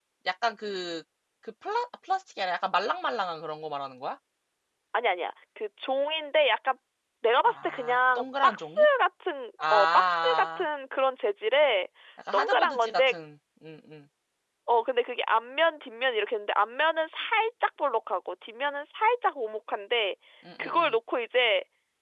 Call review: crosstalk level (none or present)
present